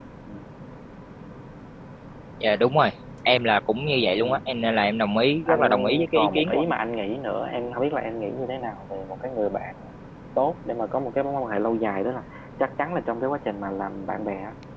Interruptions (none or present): present